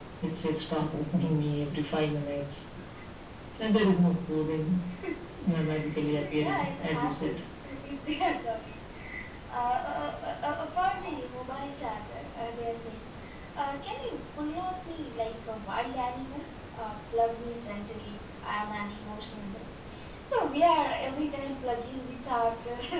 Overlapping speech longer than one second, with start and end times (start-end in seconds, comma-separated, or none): 6.1-7.3